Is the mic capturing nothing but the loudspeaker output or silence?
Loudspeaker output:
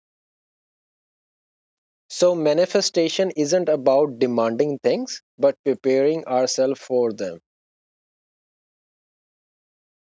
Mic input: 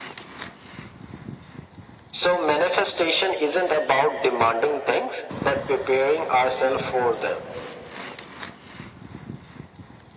Yes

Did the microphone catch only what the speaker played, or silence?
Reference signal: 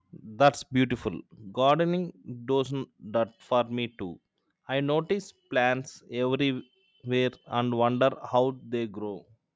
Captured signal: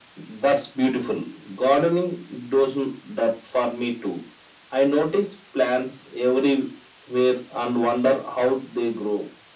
Yes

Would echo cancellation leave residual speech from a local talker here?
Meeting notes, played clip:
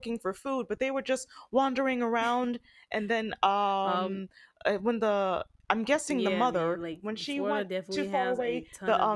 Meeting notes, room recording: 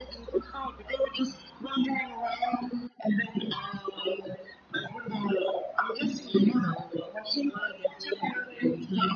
No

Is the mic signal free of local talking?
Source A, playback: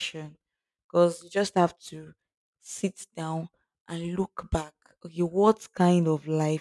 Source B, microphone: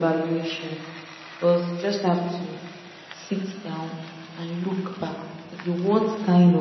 Yes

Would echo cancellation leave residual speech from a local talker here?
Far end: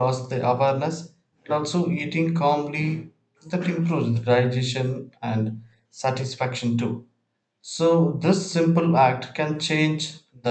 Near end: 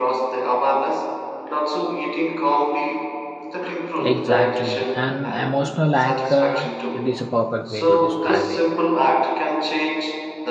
Yes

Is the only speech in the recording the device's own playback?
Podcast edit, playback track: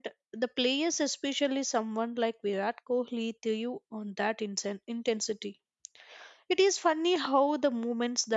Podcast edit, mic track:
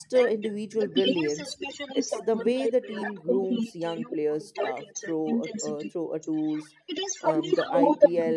No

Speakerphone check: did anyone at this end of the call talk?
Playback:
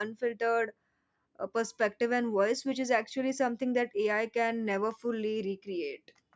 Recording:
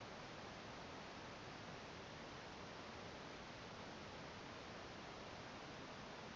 No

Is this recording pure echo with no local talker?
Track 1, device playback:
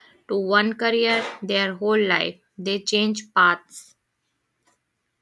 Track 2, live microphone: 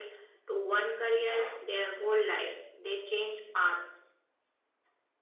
Yes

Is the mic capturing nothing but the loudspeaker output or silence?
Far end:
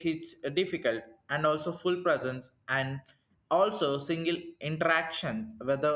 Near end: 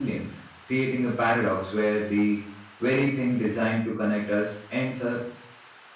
No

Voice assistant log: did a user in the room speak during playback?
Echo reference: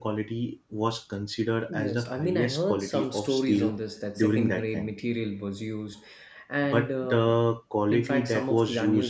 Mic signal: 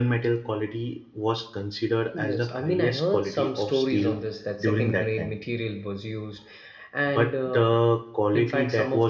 No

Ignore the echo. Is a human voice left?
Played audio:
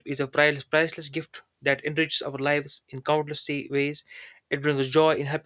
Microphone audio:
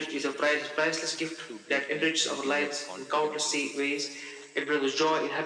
Yes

